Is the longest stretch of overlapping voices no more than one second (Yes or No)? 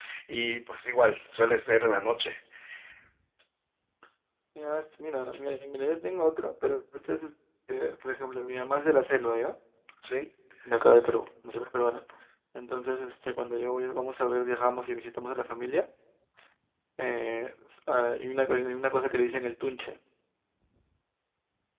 Yes